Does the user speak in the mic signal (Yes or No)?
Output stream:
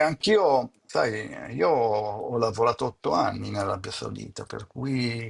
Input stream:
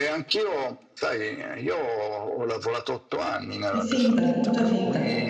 Yes